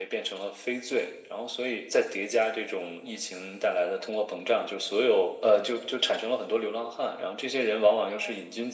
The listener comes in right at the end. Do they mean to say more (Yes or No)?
No